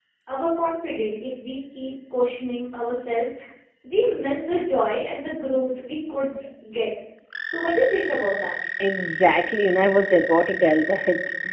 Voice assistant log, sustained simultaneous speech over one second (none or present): none